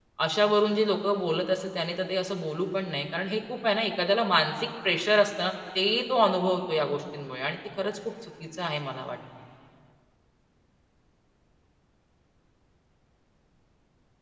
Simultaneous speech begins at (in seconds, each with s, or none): none